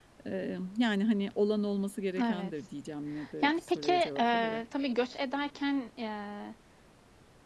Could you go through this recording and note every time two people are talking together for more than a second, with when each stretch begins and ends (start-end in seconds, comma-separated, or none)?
3.4-4.6